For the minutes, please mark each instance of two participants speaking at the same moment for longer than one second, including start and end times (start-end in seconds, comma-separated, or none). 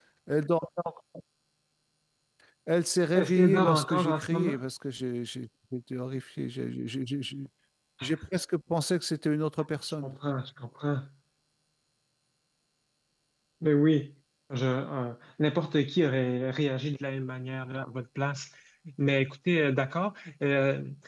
3.1-4.6